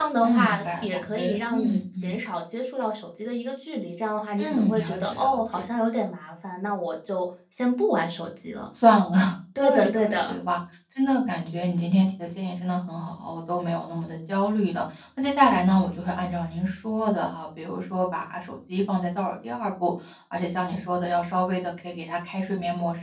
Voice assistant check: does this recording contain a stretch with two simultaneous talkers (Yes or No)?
Yes